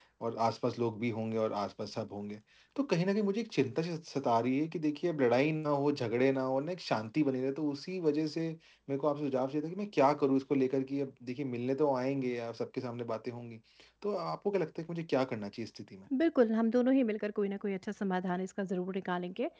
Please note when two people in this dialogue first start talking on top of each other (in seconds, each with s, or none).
none